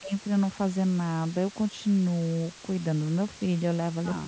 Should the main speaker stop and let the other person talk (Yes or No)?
No